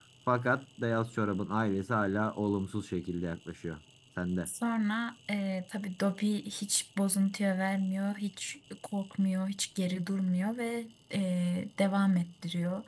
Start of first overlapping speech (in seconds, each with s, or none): none